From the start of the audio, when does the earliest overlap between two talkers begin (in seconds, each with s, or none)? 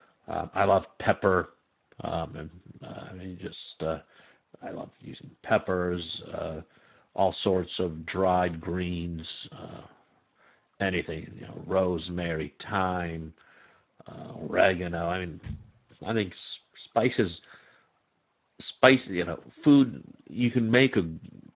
none